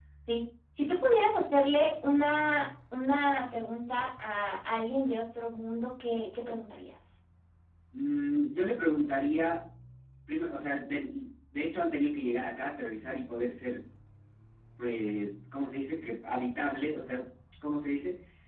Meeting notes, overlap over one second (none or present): none